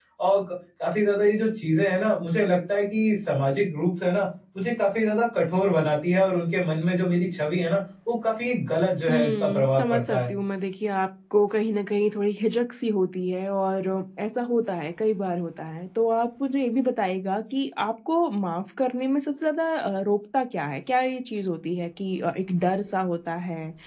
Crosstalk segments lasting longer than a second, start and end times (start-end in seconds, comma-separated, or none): 9.1-10.3